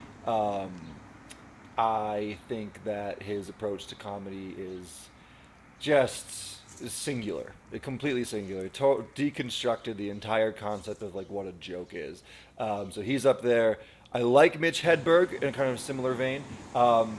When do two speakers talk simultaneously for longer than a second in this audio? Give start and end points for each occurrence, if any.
none

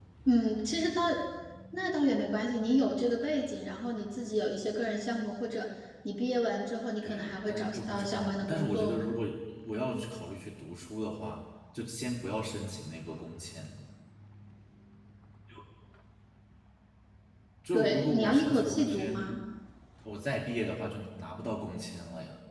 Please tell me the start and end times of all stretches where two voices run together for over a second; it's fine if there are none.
7.0-9.0, 17.7-19.3

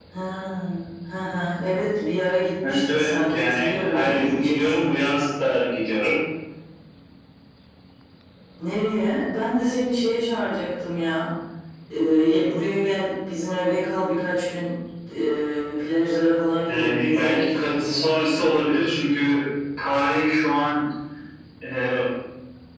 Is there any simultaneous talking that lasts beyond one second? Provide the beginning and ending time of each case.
2.6-4.9, 16.6-18.0

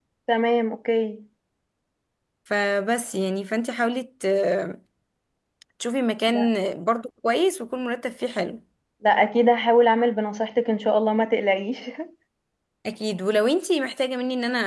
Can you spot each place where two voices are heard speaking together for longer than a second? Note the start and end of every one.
none

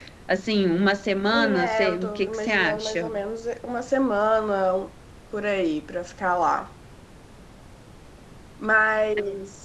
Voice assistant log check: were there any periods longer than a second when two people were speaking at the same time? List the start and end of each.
1.3-3.1

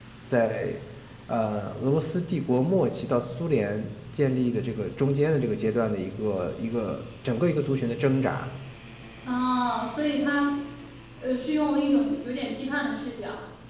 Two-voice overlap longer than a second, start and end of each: none

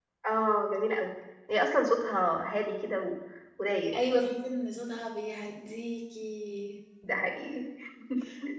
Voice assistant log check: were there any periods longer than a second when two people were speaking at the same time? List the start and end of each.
none

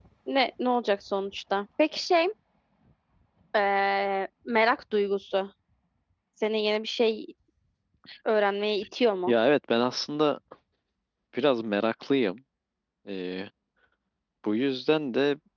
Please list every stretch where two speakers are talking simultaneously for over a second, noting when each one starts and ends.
none

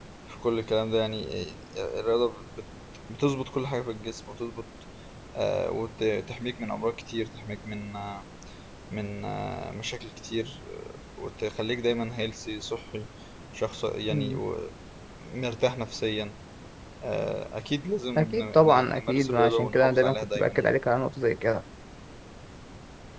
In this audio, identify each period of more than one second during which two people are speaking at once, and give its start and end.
18.2-20.7

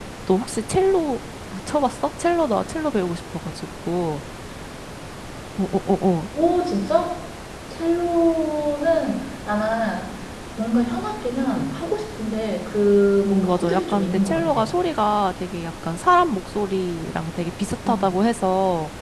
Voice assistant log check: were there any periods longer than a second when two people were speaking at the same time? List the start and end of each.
13.2-14.6

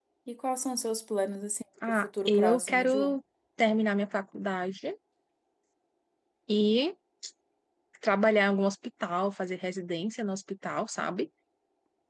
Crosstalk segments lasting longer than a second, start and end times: 1.9-3.1

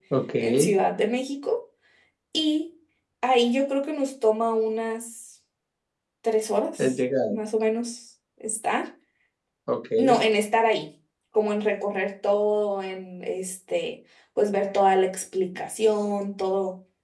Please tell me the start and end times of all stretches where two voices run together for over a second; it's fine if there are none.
none

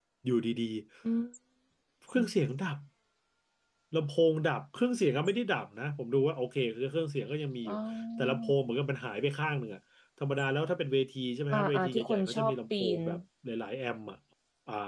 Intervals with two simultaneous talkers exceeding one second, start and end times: 11.5-13.0

